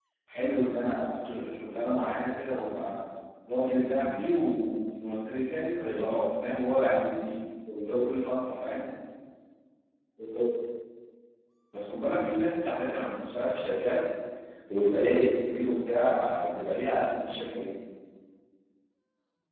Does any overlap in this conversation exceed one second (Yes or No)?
No